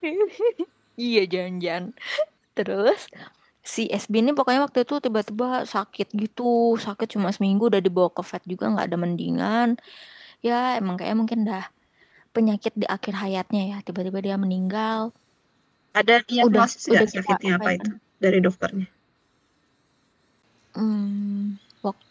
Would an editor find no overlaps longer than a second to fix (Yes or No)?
No